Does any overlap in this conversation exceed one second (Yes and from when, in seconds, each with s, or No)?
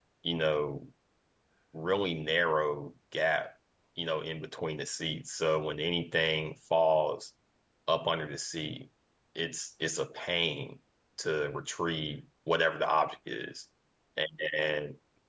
No